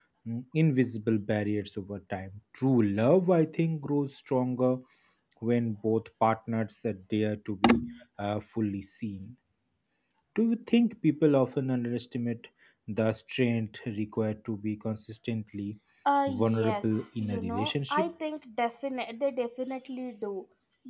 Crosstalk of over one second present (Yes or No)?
Yes